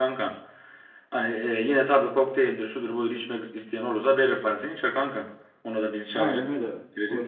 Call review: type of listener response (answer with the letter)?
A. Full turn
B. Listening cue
A